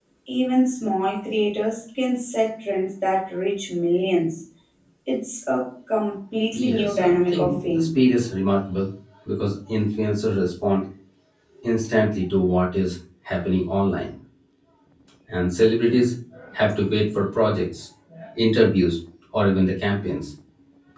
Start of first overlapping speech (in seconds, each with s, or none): 6.5 s